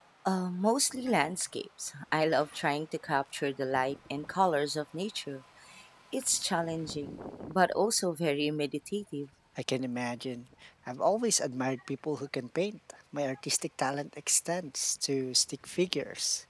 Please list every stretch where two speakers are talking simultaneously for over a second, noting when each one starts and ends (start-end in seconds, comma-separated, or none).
none